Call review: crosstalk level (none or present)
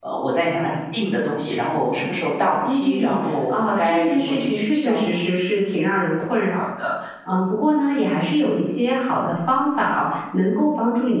present